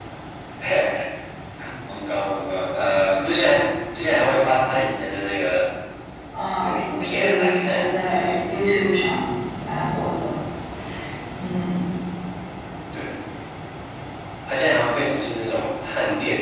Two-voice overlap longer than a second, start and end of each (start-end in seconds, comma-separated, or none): 6.5-8.4